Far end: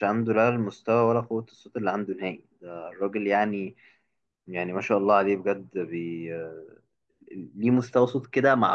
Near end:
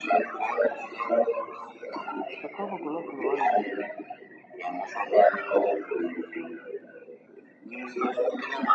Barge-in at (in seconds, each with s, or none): 2.4 s